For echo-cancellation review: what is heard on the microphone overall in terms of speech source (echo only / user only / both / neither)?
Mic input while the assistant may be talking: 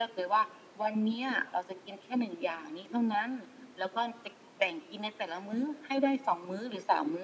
echo only